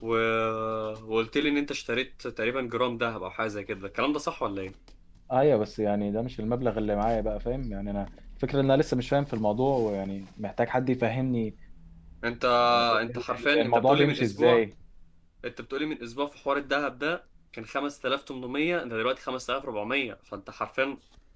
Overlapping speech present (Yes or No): Yes